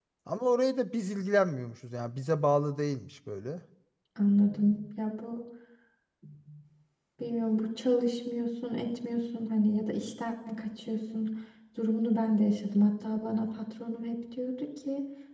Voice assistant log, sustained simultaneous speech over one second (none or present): none